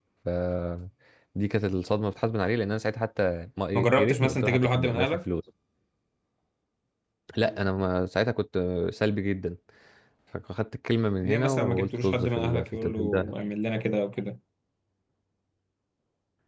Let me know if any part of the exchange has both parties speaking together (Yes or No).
Yes